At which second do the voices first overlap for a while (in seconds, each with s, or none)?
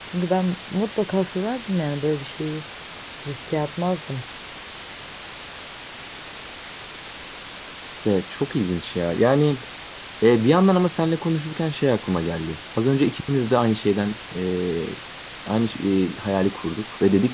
none